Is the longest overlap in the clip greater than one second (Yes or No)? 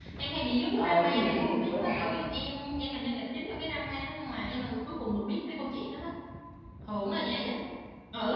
Yes